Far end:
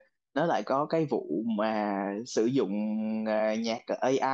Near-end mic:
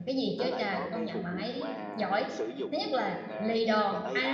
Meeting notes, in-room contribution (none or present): present